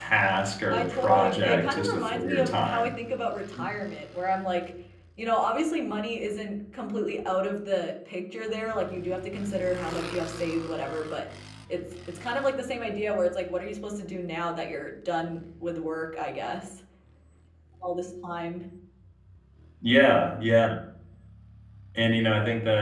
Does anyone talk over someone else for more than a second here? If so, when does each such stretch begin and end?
0.7-3.0

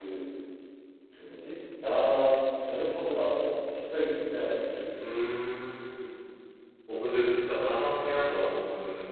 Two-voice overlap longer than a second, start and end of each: none

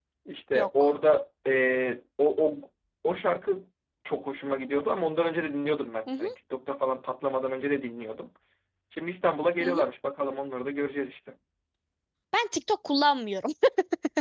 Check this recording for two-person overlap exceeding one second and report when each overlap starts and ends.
none

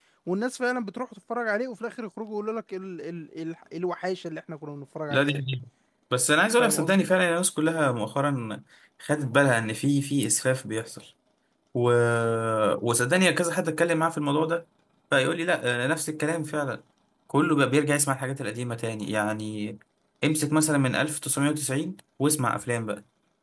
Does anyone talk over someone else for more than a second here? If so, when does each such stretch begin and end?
none

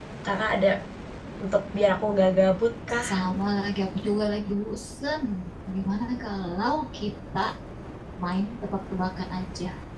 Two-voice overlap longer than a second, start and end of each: none

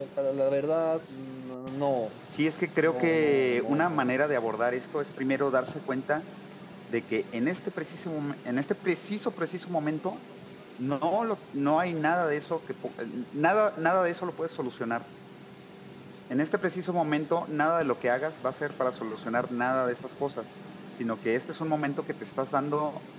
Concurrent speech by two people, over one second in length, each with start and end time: 2.8-4.1

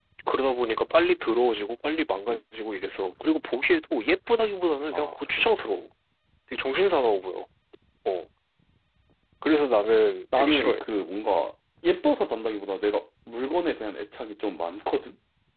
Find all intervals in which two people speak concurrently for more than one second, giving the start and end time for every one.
none

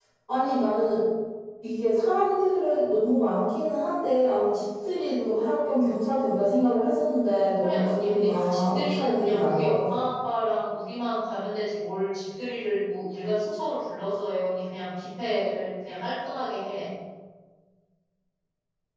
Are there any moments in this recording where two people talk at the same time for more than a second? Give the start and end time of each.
7.6-9.9

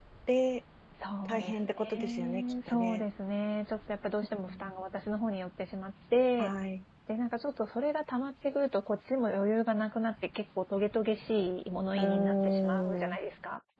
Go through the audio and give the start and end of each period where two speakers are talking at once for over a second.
1.2-3.0, 12.0-13.2

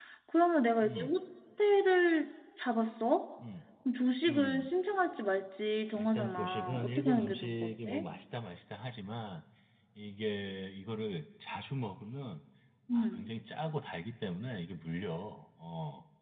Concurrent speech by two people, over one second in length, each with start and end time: 6.0-8.1

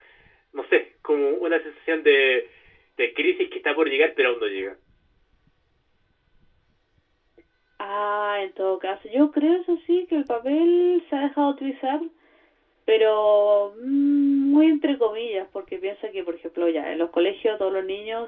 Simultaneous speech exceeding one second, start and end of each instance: none

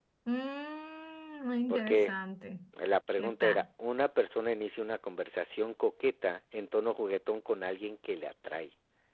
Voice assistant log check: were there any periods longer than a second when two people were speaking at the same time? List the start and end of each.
none

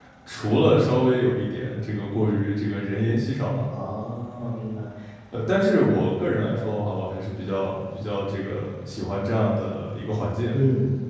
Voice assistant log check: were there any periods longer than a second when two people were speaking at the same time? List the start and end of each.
none

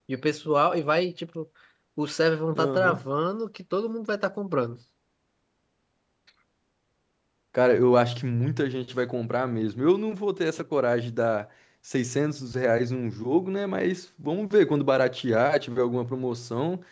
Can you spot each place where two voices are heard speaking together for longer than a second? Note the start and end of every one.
none

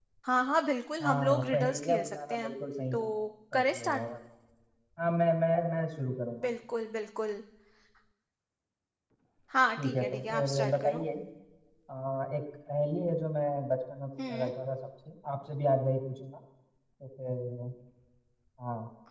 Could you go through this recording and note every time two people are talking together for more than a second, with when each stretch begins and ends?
1.0-2.5, 9.8-11.0

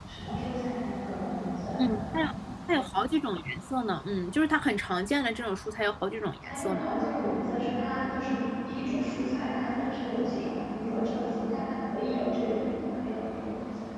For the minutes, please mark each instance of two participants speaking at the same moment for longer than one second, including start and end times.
none

